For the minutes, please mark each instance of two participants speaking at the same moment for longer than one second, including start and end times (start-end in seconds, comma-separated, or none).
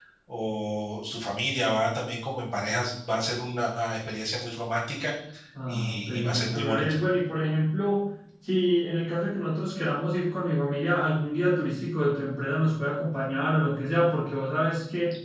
5.7-7.0